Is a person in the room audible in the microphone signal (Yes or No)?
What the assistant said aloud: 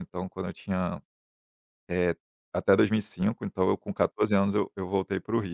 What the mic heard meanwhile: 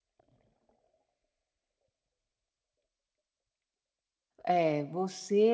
Yes